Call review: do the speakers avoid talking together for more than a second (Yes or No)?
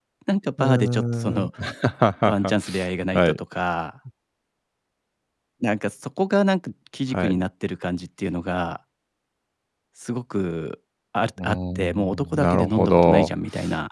No